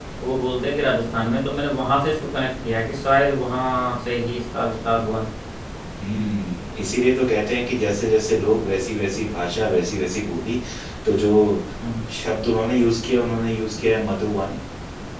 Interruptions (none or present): none